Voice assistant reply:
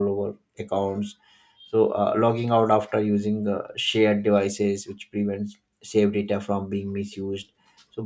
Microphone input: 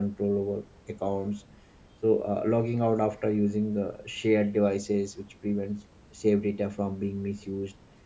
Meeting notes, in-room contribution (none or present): none